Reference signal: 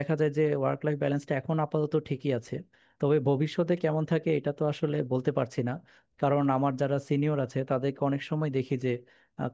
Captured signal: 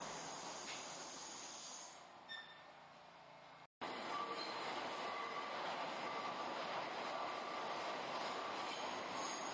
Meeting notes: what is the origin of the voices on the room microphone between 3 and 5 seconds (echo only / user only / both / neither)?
neither